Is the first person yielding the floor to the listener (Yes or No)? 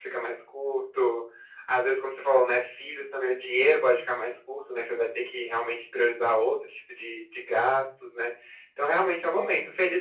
No